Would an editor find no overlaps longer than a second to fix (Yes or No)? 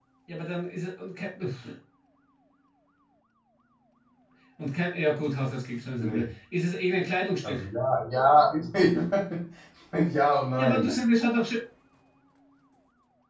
Yes